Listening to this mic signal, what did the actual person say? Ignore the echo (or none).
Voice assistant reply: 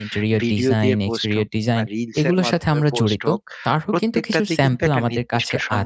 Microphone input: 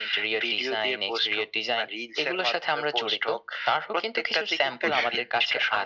অবশ্যই।